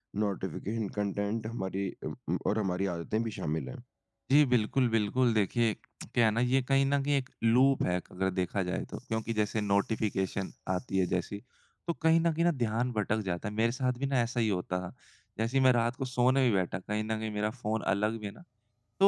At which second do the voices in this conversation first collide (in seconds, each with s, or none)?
none